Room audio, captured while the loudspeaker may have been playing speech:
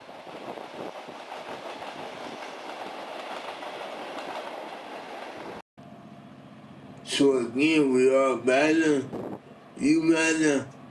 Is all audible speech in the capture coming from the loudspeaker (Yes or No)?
No